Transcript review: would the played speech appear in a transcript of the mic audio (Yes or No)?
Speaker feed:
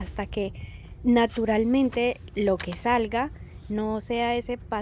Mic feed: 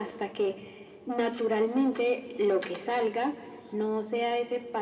Yes